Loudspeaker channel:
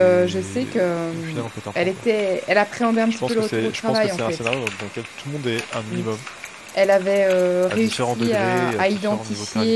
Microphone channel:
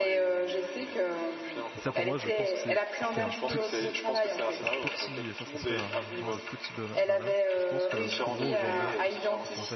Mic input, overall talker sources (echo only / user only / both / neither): both